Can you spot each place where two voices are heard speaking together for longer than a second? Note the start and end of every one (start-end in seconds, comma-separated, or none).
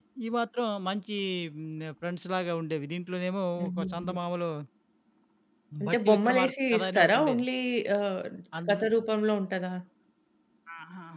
5.8-7.4